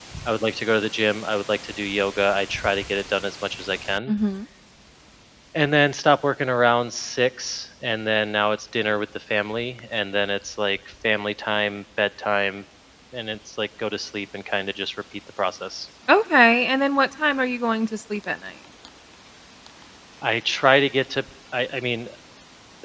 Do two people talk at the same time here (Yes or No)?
No